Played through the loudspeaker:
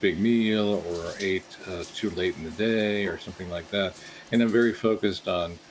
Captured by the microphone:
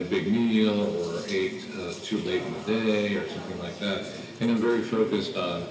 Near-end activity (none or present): present